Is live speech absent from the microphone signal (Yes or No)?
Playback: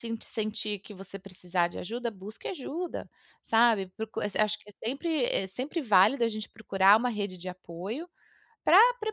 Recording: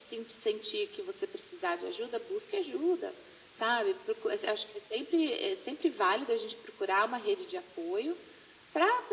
Yes